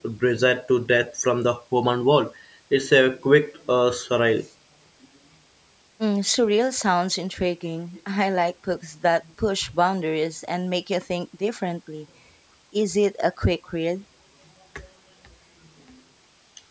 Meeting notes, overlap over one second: none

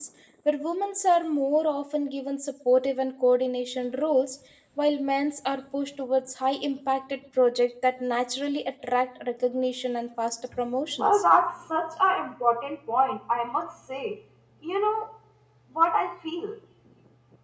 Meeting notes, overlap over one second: none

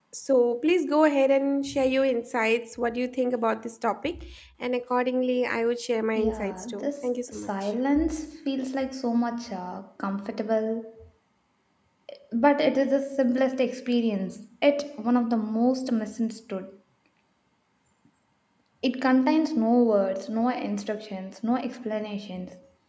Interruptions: present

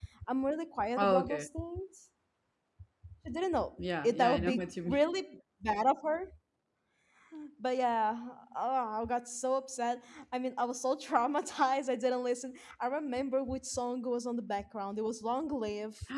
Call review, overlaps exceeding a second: present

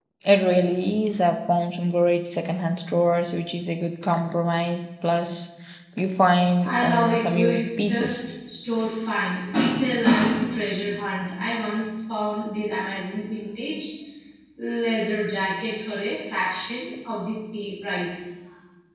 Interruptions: present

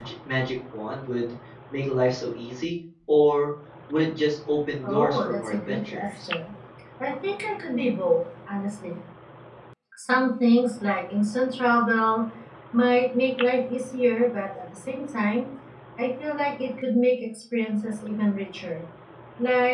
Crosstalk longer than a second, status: present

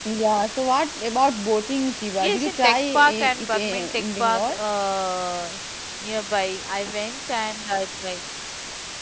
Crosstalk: present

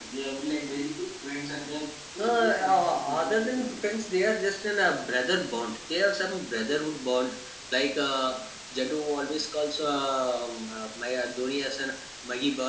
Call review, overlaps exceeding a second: present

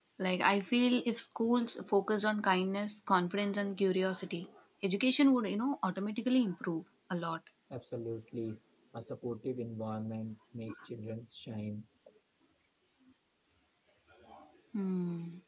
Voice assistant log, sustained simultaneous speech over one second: none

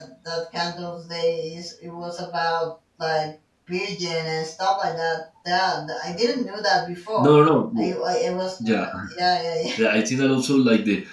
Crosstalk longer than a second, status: none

